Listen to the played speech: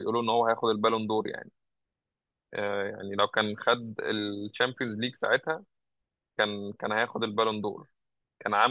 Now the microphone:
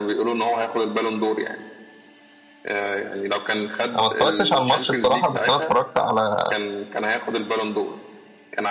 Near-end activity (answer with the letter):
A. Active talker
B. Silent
A